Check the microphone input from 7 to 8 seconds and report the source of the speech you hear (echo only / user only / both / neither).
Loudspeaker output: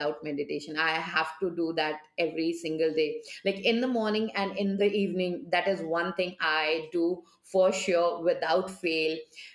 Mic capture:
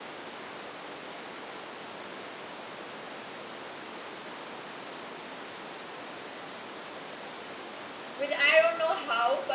neither